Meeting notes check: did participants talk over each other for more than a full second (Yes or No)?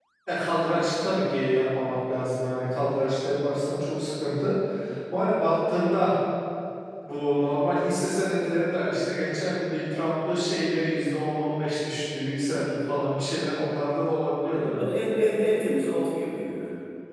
No